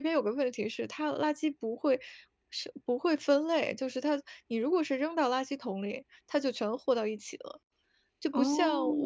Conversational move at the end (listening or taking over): listening